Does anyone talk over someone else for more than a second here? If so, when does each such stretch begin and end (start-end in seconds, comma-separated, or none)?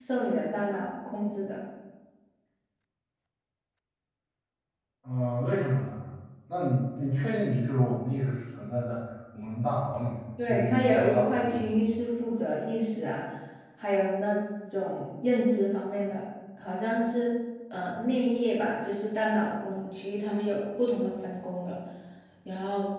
10.4-11.8